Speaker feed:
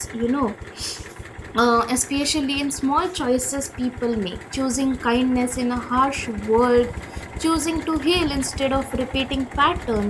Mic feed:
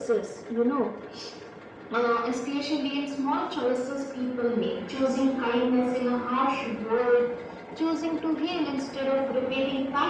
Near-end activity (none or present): none